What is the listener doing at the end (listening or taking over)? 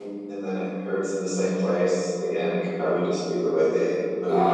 taking over